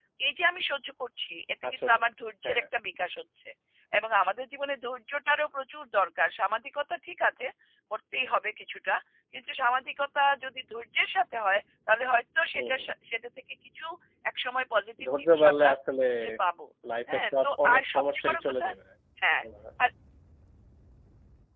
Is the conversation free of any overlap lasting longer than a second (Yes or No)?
No